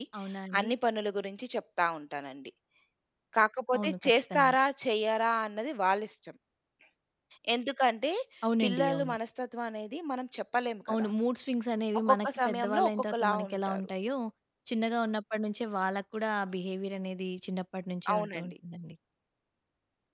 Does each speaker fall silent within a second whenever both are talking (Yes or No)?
No